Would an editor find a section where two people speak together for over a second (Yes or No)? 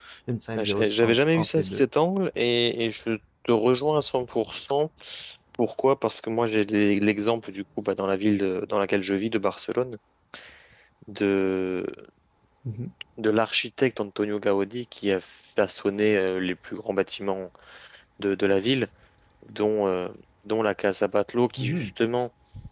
Yes